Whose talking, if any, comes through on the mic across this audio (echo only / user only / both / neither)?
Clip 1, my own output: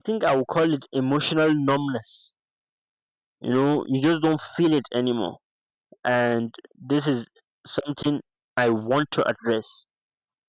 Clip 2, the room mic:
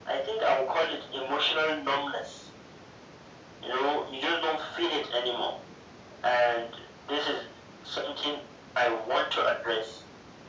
echo only